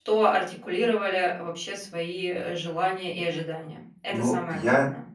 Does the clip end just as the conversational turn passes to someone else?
Yes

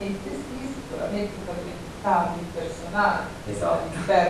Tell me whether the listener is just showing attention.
Yes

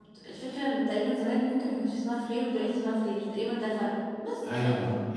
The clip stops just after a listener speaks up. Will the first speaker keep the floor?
No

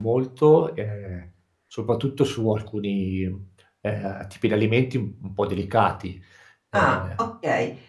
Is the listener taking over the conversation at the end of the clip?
Yes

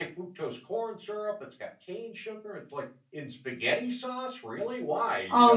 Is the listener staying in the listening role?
No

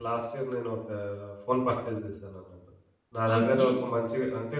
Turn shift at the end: No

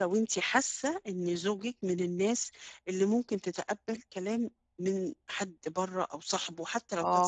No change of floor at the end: No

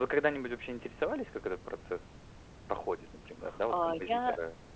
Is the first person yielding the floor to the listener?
Yes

